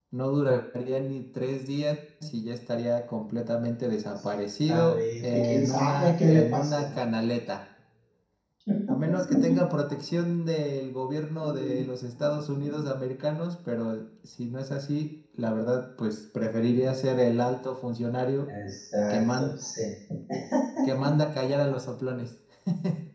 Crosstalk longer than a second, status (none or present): present